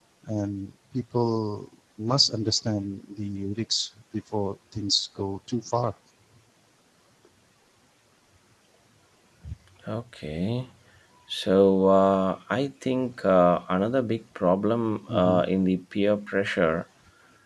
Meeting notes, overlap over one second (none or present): none